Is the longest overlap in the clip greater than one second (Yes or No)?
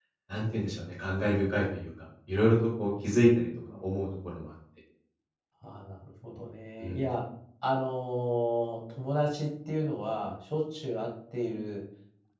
No